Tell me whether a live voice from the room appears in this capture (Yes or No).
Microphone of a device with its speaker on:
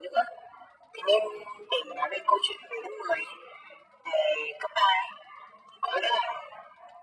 No